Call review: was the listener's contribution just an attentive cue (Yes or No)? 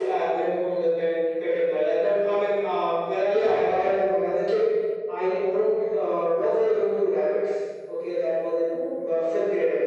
Yes